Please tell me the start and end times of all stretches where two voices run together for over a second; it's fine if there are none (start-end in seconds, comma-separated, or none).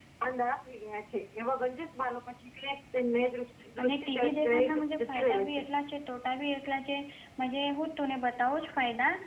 3.8-5.6